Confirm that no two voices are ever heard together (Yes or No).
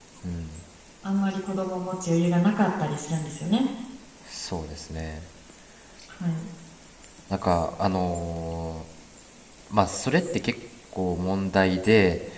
Yes